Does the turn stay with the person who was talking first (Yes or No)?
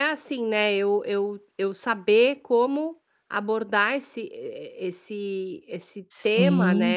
No